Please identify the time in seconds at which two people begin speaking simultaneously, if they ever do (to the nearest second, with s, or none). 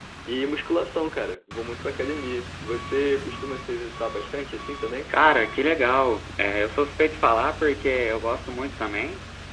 none